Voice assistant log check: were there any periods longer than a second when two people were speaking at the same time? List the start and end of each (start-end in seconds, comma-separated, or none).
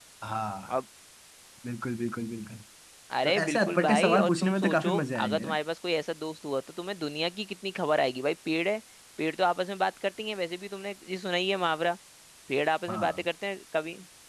3.2-5.6